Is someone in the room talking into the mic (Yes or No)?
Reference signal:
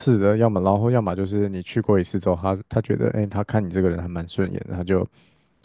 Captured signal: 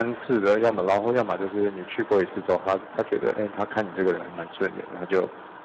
No